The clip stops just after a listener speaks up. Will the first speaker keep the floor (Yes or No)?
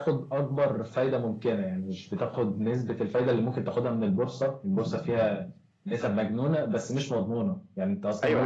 No